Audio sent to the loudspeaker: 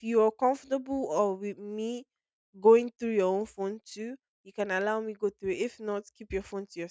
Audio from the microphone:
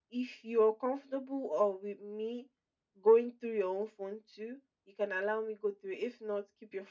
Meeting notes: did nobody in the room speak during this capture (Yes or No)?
Yes